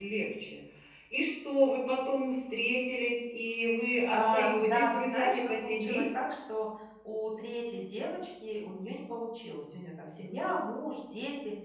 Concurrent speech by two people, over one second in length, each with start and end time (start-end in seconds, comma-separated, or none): 4.1-6.0